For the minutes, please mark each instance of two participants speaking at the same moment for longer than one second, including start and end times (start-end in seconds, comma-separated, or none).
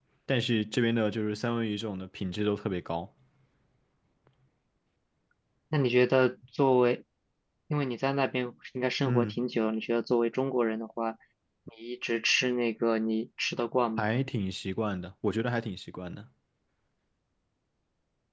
none